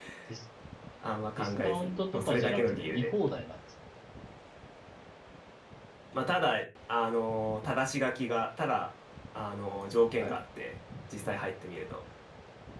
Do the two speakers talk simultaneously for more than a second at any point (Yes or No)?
Yes